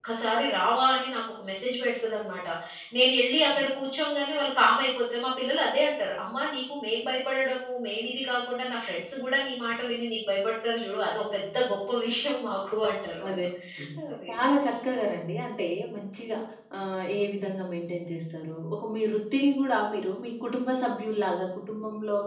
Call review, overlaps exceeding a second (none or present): none